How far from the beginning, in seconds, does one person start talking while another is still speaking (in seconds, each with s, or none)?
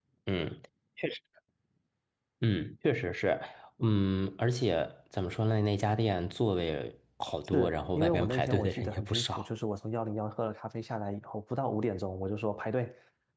7.4 s